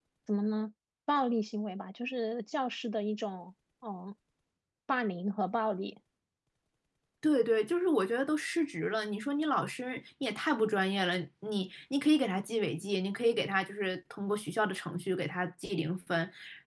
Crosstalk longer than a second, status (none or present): none